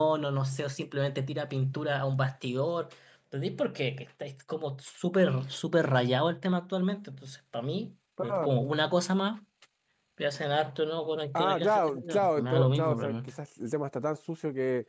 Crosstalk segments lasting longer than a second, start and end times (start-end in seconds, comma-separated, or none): 11.3-13.2